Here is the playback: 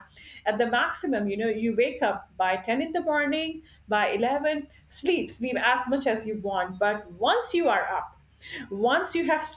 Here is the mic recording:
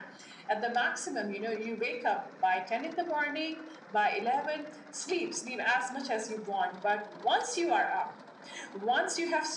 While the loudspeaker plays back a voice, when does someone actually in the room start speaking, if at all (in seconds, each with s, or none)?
none